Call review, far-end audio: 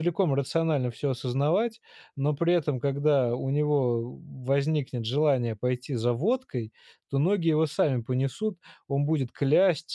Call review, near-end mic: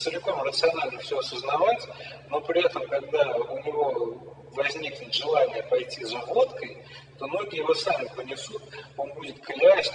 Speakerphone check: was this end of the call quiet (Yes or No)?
Yes